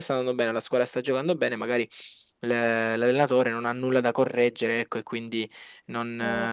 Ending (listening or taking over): listening